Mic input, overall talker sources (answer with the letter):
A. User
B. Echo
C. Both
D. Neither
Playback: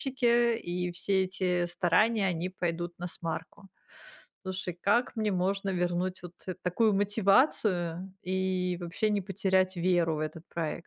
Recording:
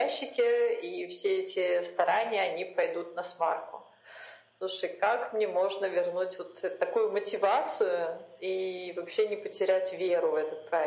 B